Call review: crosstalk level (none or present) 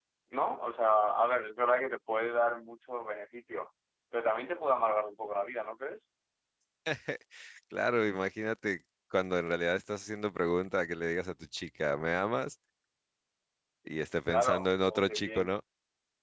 present